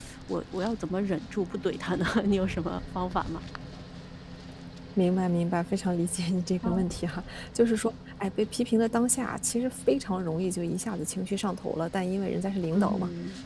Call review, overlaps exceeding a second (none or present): none